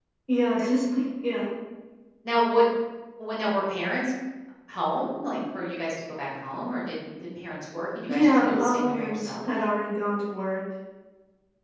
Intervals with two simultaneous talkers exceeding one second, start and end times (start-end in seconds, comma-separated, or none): 8.1-9.5